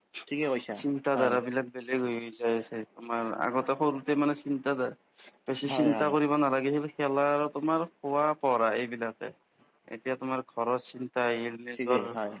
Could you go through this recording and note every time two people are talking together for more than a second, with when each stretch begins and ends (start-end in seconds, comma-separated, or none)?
none